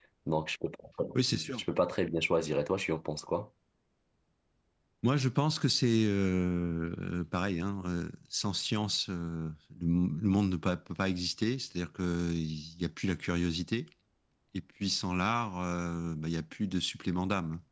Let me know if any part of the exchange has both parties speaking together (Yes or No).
No